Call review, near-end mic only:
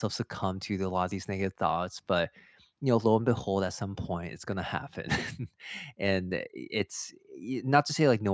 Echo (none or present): none